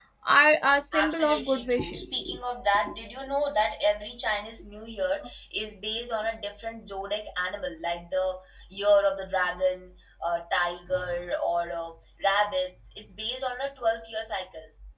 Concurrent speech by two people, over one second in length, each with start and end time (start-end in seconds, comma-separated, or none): 0.9-2.3